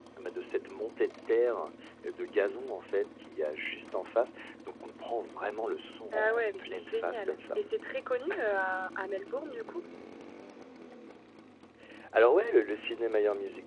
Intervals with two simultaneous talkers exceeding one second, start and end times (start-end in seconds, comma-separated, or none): 6.1-7.6